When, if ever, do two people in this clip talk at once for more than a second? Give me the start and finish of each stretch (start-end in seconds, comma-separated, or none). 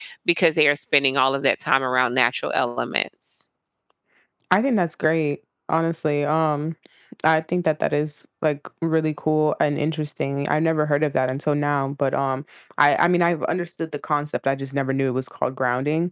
none